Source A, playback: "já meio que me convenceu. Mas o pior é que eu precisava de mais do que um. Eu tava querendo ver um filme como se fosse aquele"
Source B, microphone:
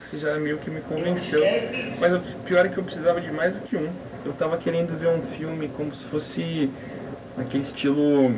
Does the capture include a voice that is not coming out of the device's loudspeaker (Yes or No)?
Yes